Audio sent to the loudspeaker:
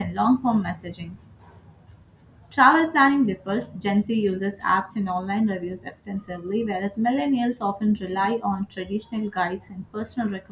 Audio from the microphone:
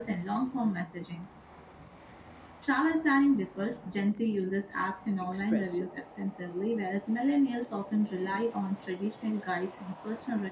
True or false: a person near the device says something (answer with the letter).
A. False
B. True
B